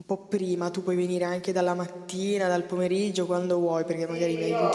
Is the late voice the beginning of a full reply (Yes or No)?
Yes